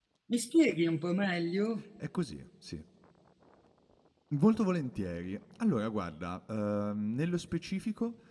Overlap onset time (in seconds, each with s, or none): none